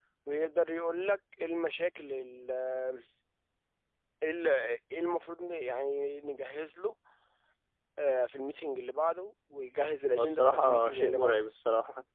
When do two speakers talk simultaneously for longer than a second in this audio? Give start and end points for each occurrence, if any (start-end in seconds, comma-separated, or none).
10.2-11.4